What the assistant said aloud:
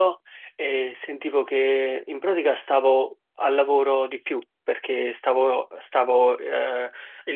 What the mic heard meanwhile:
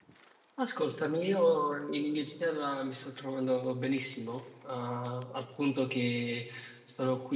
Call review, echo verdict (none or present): none